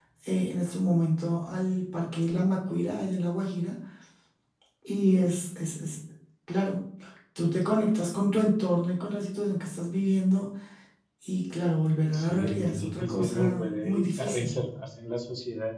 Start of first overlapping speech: 12 s

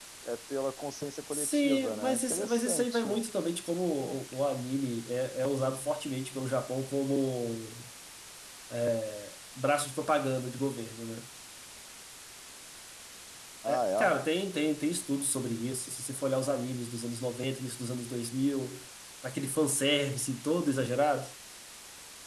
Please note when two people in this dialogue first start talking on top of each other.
1 s

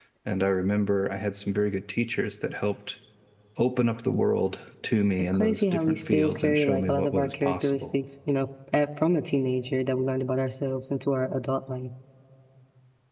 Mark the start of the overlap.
5 s

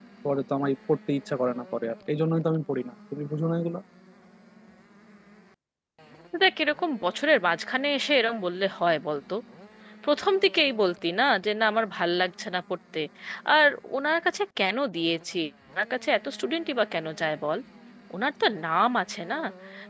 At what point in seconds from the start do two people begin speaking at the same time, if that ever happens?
none

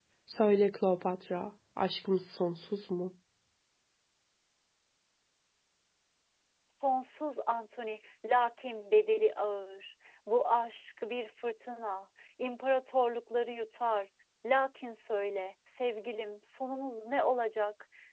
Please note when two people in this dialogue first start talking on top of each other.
none

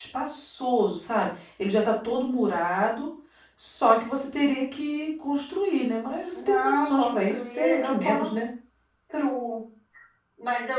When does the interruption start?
6 s

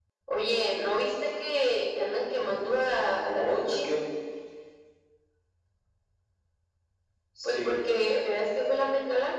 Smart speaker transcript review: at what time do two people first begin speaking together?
2 s

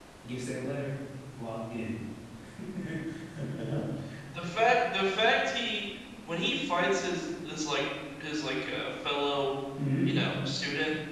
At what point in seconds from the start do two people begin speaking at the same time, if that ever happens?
none

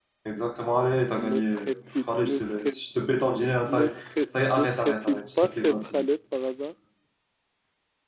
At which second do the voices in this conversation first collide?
1 s

